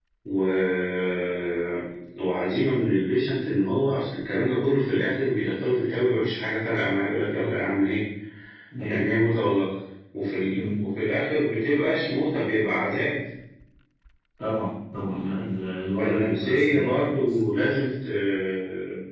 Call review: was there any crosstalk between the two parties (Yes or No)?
Yes